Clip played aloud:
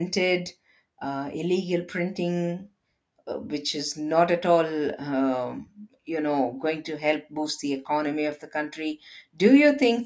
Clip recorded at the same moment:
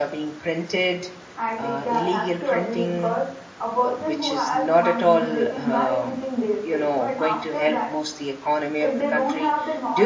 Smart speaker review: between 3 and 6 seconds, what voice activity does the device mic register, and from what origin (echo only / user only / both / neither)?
both